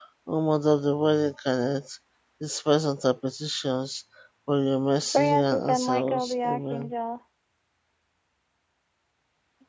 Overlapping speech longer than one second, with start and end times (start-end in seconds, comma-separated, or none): 5.1-6.9